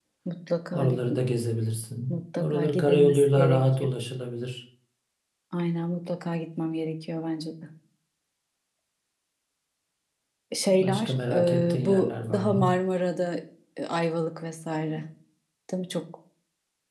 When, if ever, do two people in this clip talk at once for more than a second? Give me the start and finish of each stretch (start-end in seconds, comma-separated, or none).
2.1-3.9, 10.7-12.8